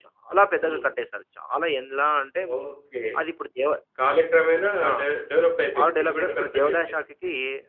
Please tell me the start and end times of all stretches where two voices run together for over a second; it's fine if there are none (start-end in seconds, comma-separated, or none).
5.8-7.0